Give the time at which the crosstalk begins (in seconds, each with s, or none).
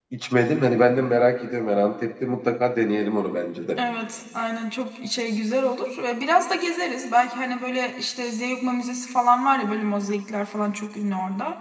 none